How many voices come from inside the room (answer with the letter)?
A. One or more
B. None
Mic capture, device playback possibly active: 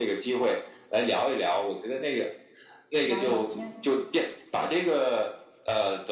A